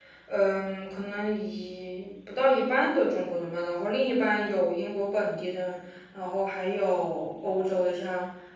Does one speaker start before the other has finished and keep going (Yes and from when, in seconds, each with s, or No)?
No